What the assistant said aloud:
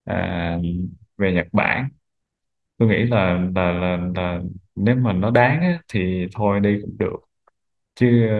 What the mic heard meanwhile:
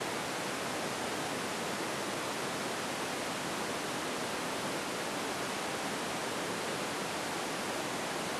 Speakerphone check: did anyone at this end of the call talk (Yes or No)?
No